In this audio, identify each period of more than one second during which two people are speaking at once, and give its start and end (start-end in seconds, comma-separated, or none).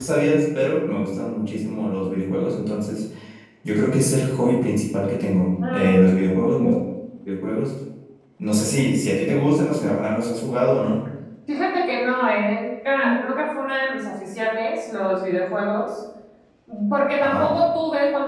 none